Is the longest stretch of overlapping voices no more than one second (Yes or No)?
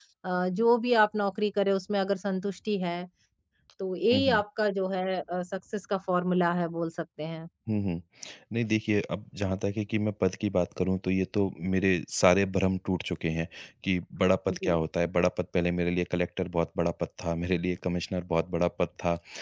Yes